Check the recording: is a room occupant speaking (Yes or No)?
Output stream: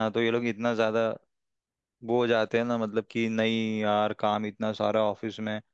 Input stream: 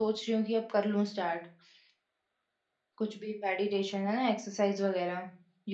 Yes